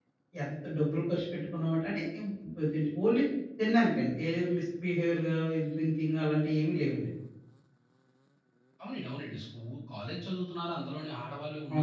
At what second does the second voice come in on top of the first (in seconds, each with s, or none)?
none